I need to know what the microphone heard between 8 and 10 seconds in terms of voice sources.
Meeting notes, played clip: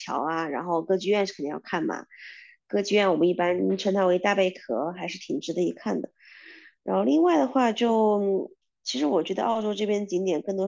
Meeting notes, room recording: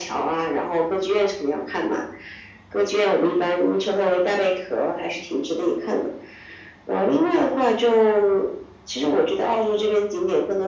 echo only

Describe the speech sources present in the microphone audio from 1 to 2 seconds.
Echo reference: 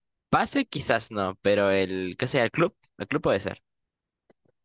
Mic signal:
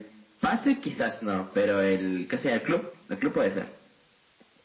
echo only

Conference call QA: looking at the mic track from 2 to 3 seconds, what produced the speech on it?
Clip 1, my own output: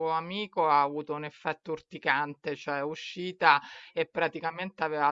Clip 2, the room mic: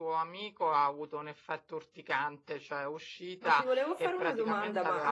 echo only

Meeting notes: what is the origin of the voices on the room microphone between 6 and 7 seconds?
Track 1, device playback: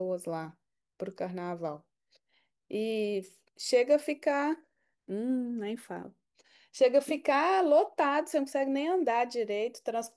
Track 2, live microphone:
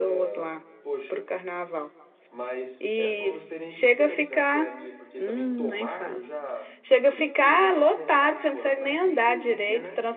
both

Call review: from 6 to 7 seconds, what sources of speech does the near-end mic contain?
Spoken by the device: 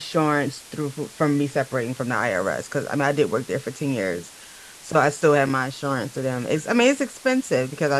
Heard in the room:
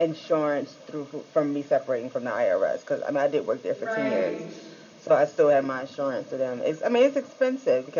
echo only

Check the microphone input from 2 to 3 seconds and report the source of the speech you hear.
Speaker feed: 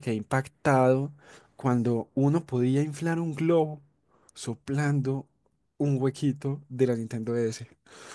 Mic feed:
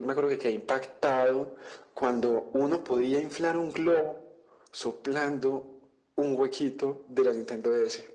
echo only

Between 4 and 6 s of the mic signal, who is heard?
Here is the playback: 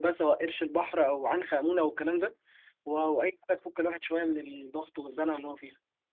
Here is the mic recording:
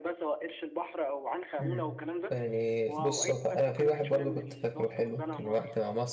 both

